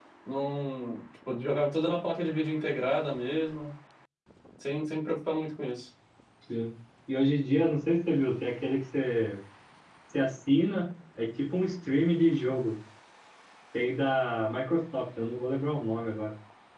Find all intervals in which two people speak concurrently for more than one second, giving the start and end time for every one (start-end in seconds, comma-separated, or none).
none